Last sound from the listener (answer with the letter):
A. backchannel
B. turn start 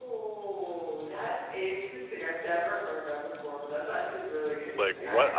B